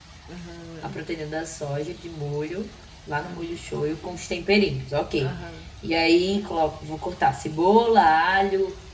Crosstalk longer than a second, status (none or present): none